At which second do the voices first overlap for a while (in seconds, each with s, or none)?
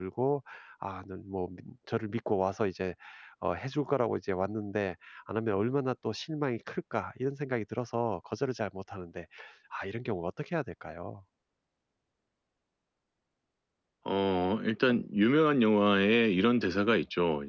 none